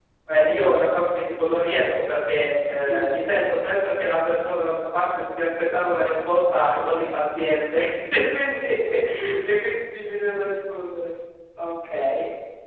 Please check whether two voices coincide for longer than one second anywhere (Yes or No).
No